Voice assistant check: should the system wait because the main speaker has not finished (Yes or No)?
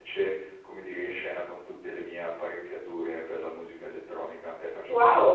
No